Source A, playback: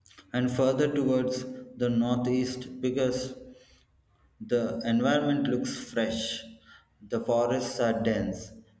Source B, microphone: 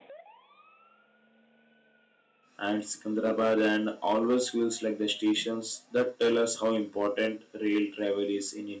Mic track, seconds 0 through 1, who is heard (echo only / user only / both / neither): neither